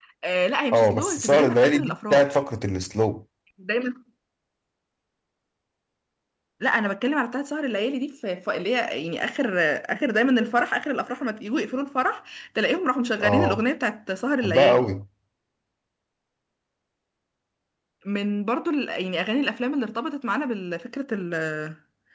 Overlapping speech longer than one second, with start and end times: 0.7-2.2

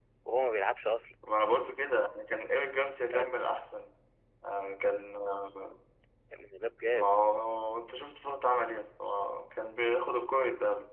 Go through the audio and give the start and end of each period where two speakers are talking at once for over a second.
none

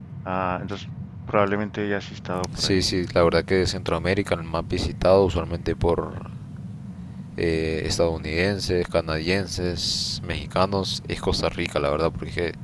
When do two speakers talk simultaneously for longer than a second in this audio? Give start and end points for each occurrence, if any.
none

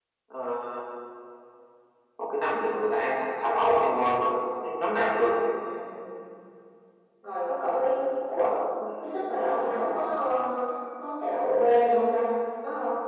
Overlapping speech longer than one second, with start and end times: none

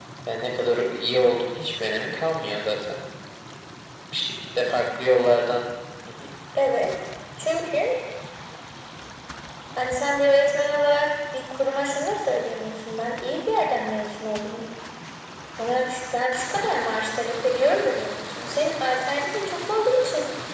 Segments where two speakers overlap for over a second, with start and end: none

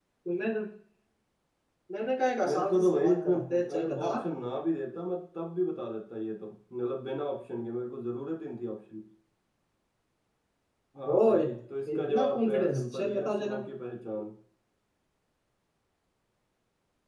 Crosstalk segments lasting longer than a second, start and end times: 2.5-4.2, 12.0-13.6

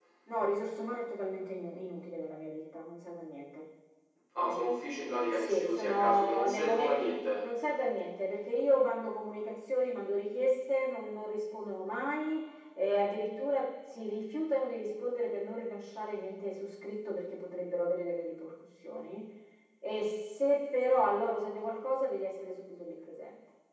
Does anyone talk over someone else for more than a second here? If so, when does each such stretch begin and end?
5.3-7.0

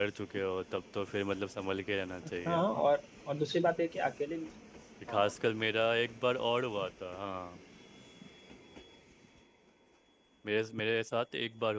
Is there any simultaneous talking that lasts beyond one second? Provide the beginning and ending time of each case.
none

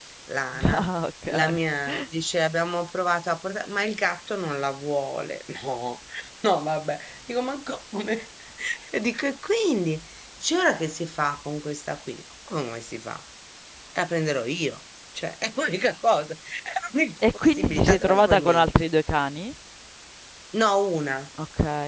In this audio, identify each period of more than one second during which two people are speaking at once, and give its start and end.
17.3-18.7

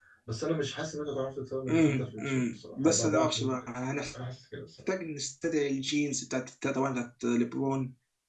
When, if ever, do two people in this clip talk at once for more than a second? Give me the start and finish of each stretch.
1.7-3.5

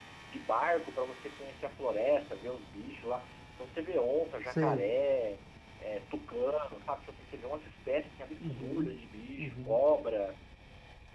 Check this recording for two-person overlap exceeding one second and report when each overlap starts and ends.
none

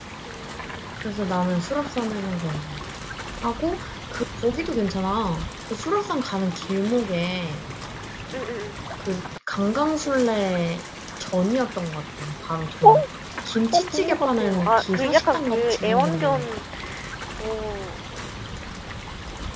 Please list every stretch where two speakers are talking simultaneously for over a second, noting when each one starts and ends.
13.7-16.5

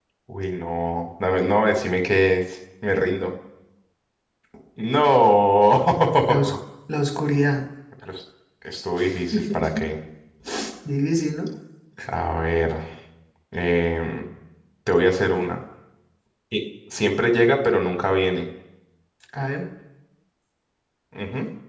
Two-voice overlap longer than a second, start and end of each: none

